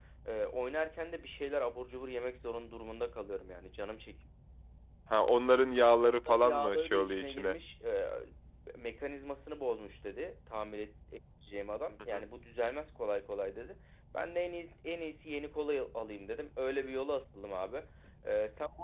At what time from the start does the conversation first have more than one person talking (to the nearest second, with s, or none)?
6 s